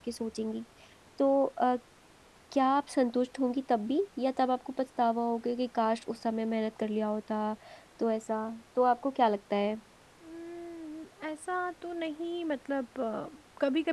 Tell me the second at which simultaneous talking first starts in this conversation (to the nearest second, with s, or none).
none